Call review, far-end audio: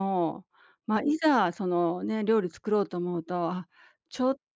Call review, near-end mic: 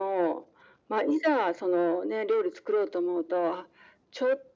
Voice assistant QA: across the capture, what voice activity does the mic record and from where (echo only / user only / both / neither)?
echo only